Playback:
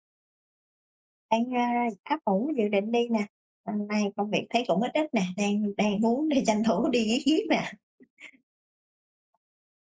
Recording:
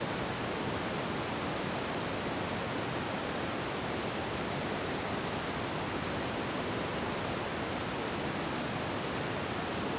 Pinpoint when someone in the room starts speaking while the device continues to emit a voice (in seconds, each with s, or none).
none